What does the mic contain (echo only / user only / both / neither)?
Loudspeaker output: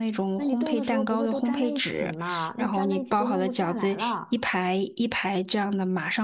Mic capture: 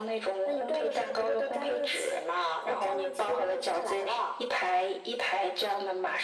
echo only